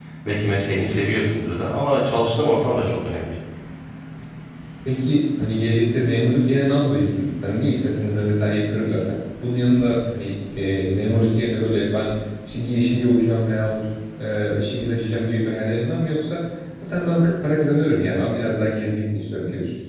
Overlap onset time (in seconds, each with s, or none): none